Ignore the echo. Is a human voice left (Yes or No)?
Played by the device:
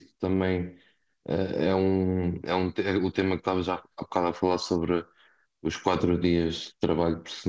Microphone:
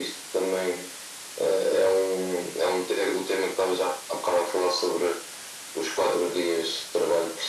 No